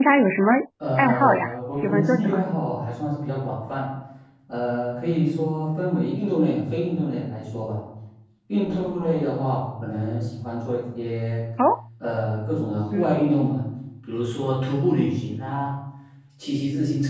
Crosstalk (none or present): present